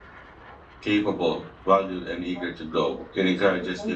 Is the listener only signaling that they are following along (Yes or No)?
Yes